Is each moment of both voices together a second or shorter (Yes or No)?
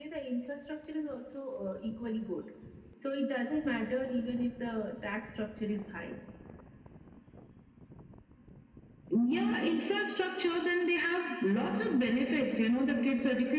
Yes